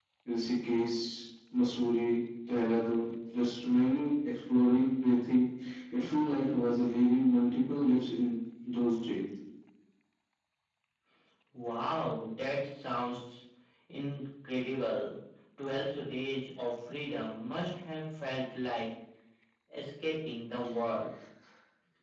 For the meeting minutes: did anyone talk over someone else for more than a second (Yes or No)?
No